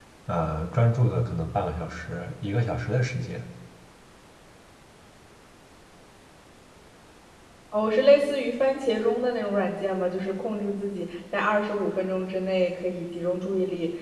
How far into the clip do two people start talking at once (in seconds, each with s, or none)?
none